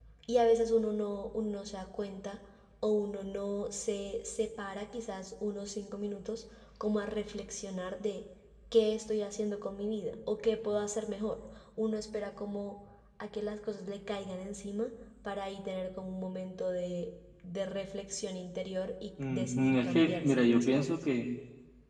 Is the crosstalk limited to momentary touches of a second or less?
No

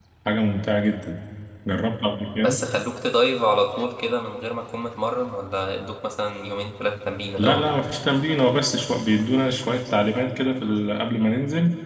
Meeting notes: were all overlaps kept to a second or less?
Yes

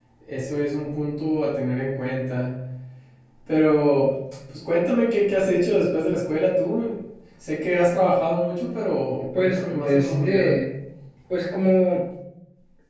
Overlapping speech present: Yes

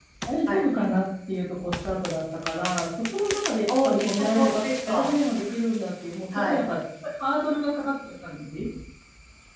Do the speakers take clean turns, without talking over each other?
No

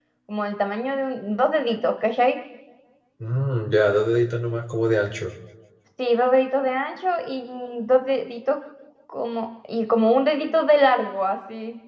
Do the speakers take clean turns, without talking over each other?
Yes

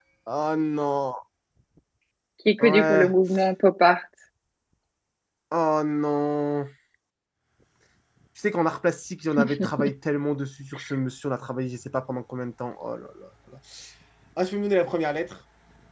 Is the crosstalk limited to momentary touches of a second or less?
Yes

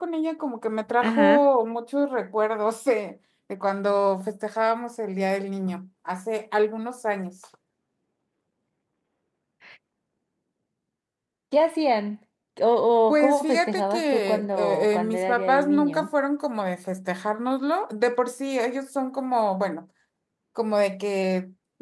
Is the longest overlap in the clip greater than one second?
Yes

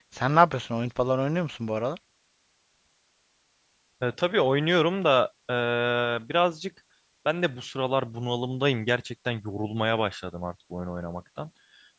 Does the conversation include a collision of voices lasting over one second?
No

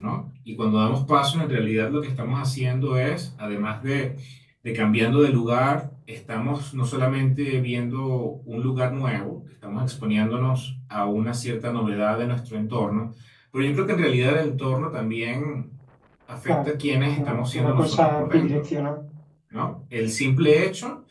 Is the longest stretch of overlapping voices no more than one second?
No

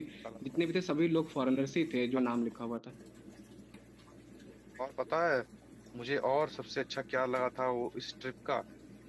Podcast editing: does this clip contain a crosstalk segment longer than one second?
No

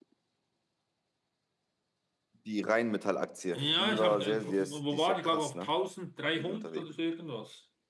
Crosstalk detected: Yes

